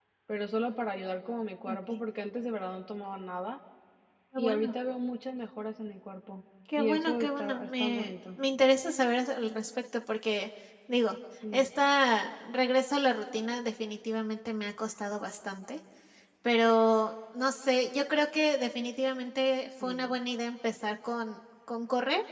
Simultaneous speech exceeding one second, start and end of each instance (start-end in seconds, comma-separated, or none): 6.7-8.1